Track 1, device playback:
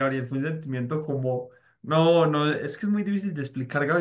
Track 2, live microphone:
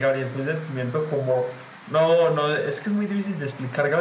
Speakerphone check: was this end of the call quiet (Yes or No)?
Yes